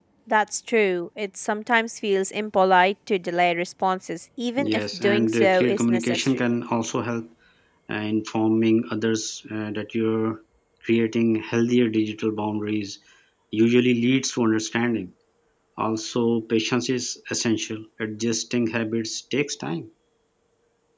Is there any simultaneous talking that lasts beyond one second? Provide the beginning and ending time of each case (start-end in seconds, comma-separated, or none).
4.6-6.5